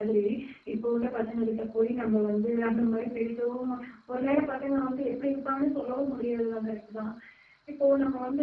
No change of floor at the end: Yes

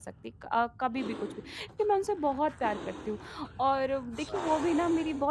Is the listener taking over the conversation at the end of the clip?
No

